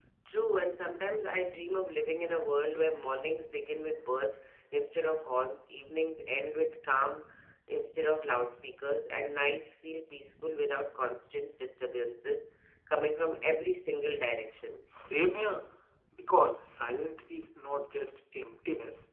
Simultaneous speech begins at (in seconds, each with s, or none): none